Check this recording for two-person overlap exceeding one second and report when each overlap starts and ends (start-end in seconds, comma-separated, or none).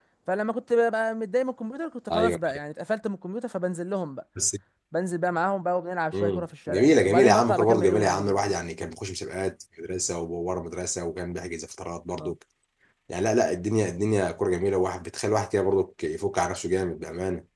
6.1-8.5